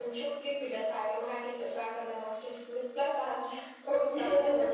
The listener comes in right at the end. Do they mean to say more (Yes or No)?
Yes